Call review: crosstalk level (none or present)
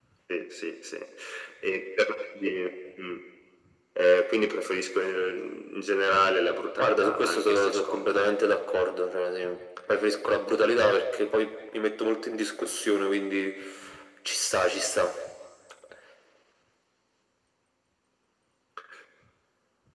present